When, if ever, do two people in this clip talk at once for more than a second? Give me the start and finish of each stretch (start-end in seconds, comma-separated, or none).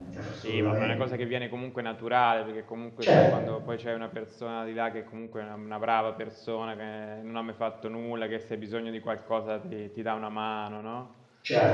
none